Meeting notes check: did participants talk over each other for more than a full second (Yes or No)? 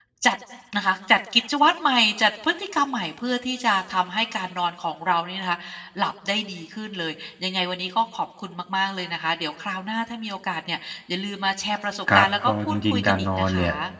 Yes